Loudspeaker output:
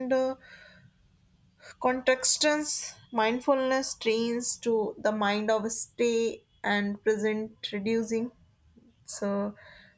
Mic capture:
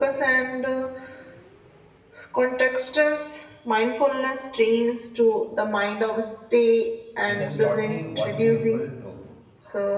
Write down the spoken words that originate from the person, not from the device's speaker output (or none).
it has taught me one simple truth